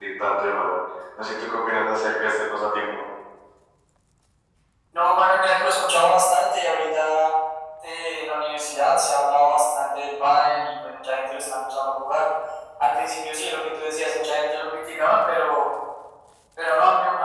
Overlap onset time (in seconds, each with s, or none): none